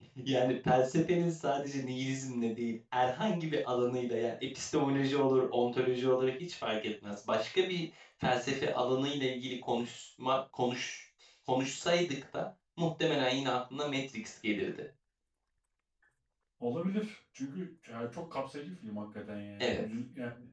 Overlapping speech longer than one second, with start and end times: none

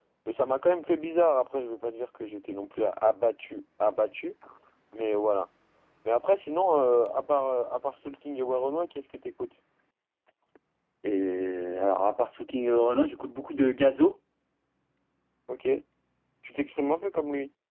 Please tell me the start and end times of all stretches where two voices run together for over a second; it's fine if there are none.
none

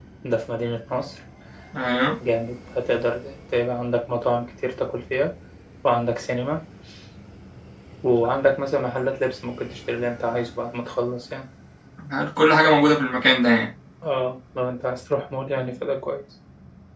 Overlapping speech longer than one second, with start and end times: none

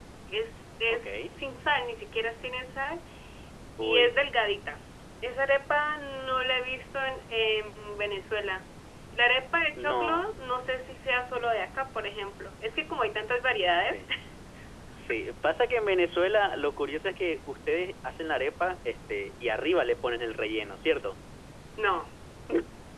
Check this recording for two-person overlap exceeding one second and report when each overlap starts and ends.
none

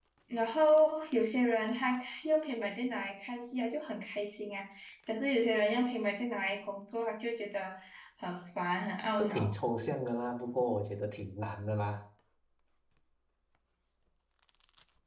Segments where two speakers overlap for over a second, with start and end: none

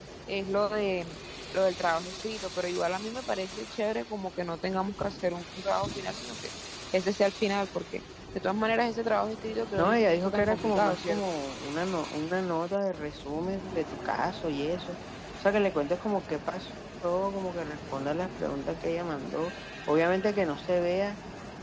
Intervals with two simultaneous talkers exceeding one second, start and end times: 9.8-11.2

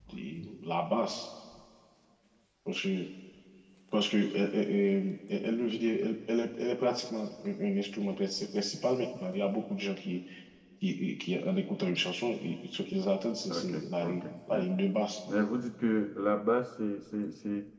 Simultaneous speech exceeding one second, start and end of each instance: 13.5-14.7

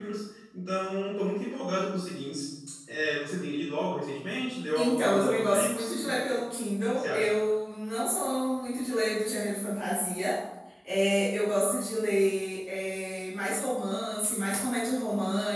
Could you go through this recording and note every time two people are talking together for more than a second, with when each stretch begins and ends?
4.8-6.2

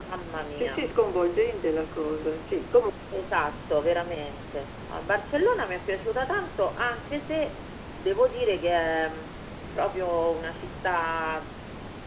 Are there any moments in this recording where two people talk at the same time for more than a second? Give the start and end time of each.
none

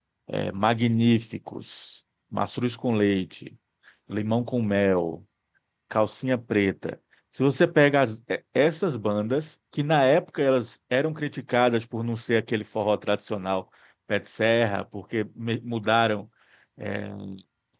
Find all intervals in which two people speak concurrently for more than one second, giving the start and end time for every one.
none

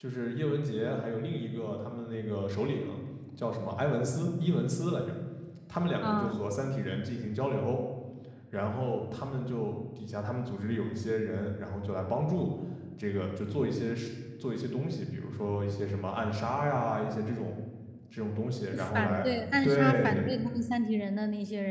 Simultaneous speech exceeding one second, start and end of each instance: 18.9-20.3

